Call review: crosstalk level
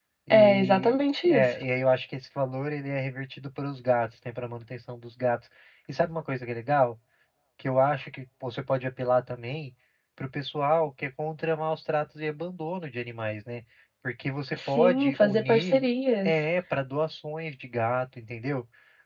present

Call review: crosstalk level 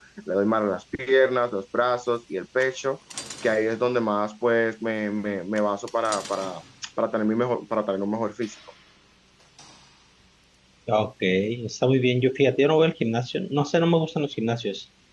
none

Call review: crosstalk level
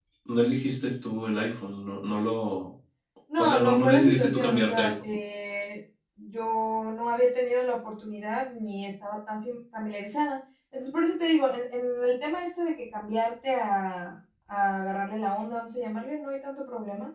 present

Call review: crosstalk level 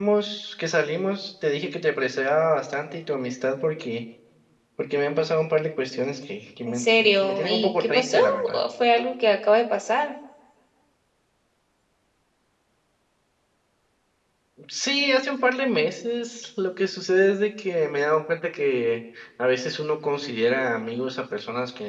present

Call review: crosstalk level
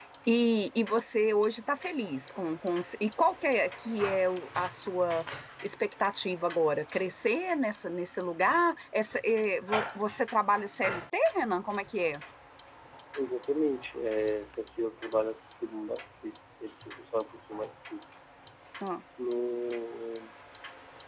none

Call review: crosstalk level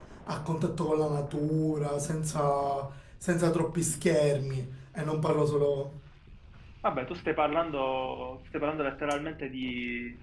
none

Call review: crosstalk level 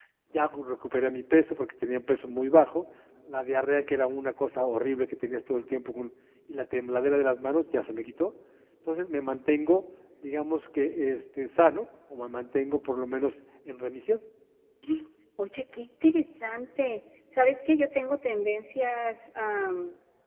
none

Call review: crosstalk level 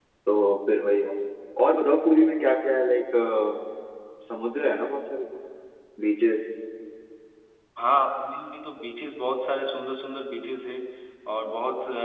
none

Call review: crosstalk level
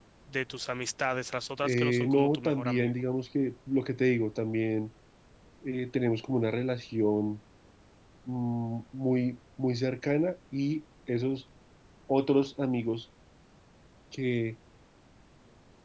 present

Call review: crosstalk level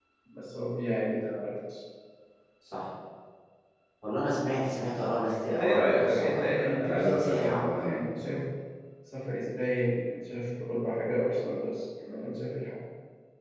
present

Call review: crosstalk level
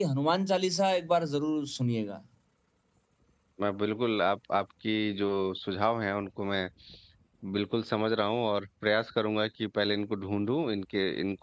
none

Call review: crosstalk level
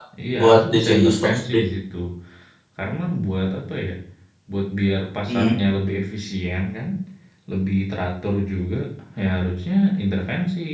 present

